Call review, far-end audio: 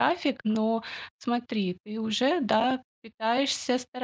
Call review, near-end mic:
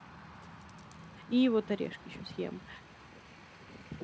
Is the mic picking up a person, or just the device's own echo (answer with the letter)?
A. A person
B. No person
A